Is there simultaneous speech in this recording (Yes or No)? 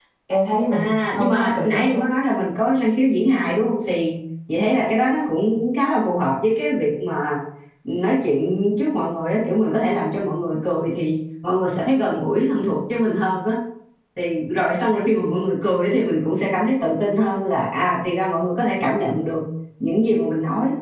Yes